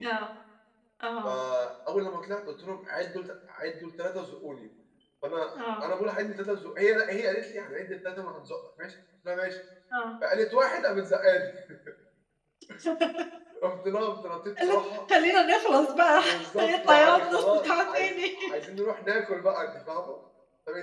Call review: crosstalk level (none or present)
present